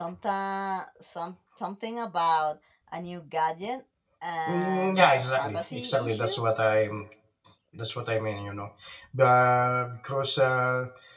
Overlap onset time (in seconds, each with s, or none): 4.5 s